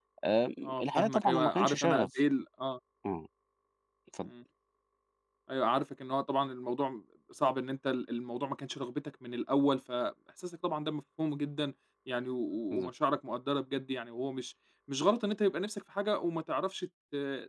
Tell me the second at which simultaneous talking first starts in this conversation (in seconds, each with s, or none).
0.6 s